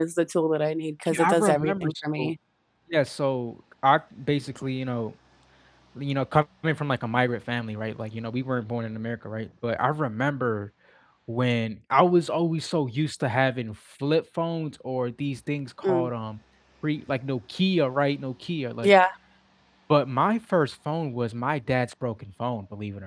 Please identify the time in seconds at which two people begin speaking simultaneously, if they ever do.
1.1 s

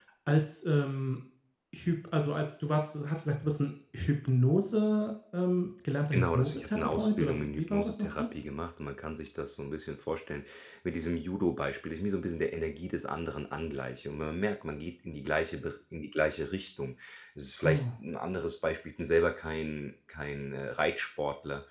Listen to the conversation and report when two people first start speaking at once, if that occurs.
6.1 s

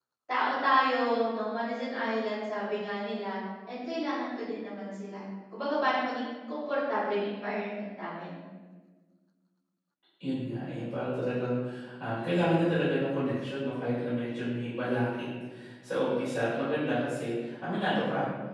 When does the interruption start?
none

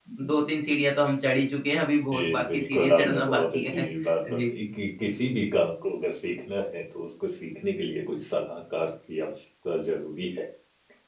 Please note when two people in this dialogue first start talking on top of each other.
2.1 s

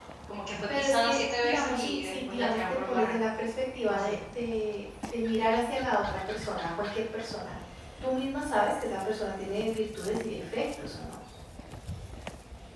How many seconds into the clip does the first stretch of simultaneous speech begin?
0.8 s

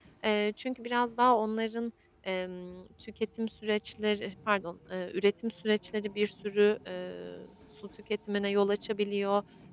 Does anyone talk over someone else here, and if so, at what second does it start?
none

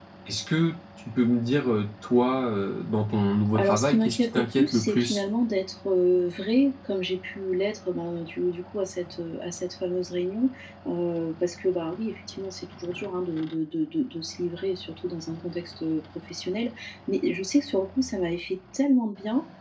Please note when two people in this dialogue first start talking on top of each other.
3.5 s

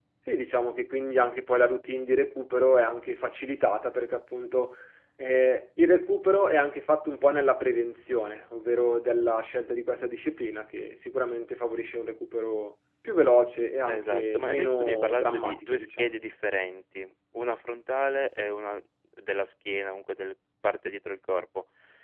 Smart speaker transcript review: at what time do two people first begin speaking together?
13.9 s

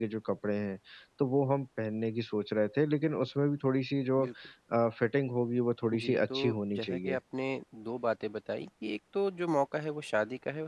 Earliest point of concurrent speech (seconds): 5.9 s

